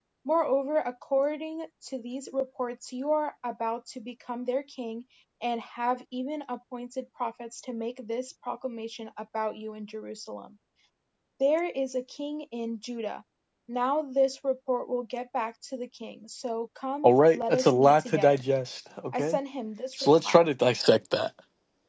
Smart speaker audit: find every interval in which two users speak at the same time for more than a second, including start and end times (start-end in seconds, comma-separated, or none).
17.0-18.4